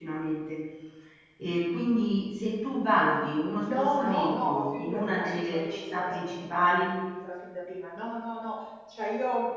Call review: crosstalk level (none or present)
present